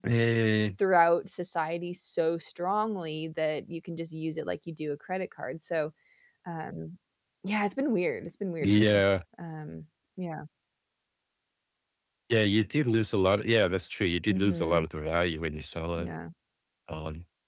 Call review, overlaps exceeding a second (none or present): none